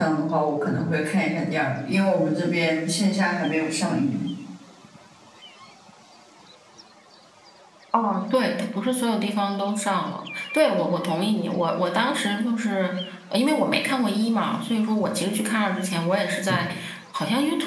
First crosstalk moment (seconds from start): none

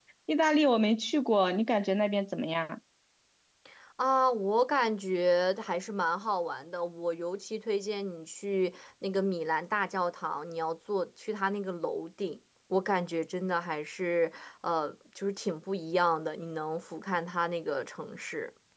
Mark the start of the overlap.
none

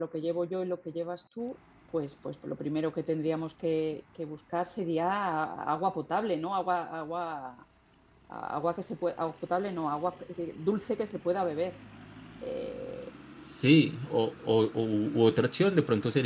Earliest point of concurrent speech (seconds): none

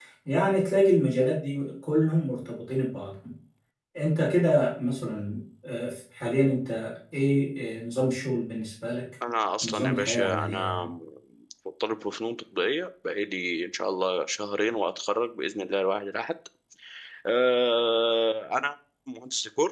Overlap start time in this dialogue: 9.6 s

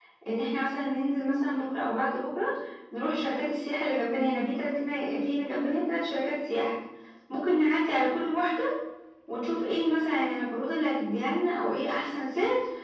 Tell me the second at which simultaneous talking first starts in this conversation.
none

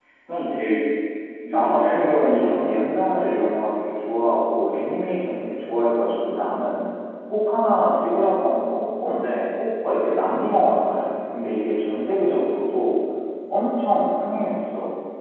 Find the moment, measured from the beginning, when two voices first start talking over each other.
1.5 s

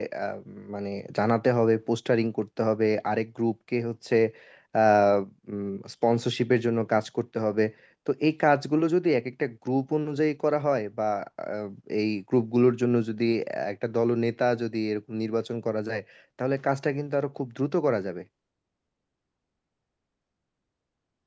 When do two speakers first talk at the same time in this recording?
none

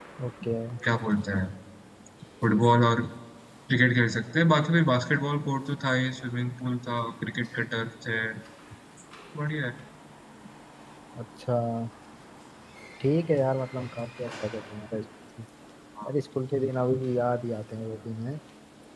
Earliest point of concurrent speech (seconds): none

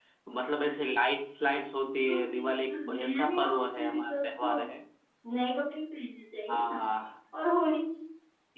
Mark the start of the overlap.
2.1 s

